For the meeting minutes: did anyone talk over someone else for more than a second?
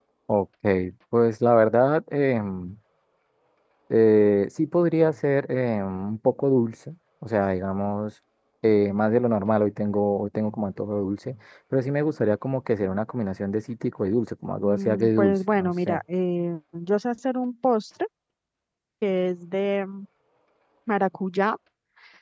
Yes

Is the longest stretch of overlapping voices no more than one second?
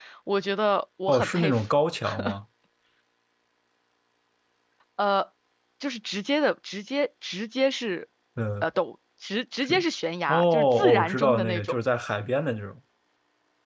No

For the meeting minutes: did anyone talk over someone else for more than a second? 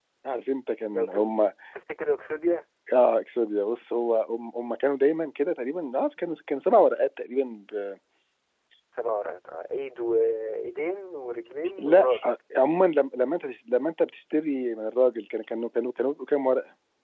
No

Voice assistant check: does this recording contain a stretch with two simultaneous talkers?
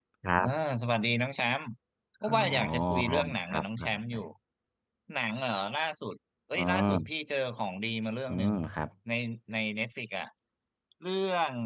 Yes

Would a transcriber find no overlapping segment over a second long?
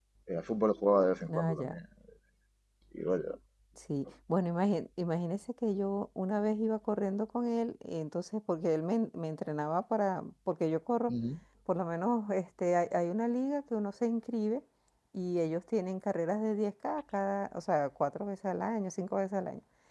Yes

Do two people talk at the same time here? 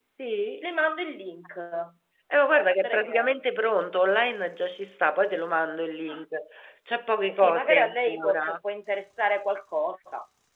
Yes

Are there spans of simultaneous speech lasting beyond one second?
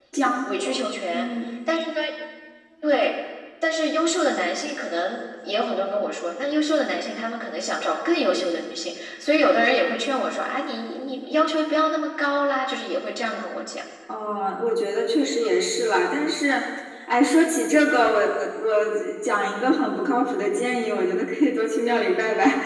No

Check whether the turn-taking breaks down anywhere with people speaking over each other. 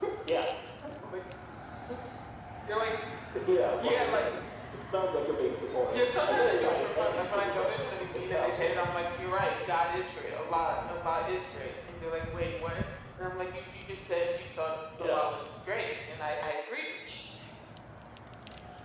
Yes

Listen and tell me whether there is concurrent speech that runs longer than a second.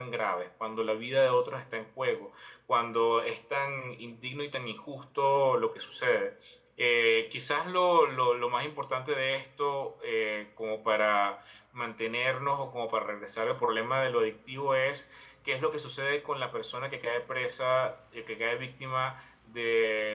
No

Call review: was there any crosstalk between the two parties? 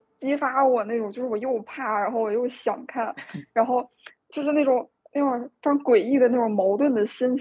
No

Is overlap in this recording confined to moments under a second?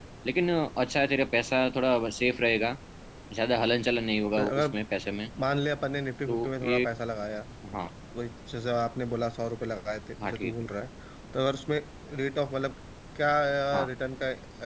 Yes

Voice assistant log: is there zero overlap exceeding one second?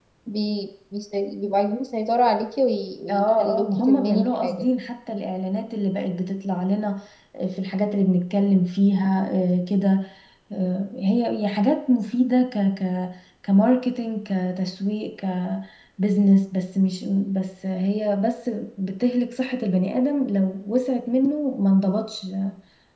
No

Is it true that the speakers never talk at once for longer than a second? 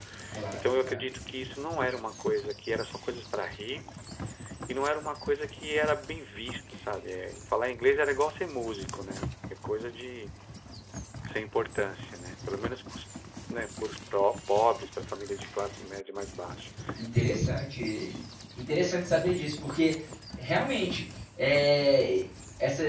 Yes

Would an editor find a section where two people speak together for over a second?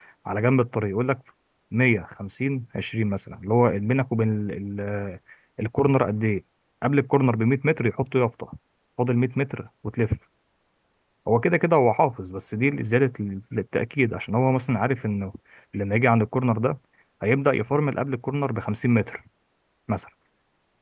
No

